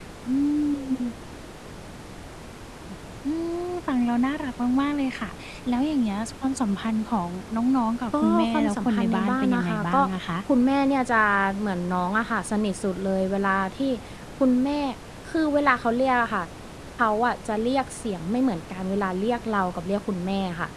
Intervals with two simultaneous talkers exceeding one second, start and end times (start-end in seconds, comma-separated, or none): 8.2-10.0